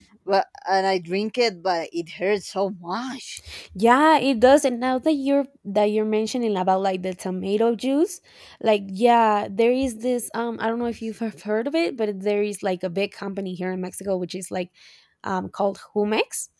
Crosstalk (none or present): none